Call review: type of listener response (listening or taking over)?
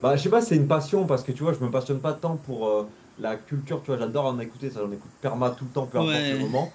listening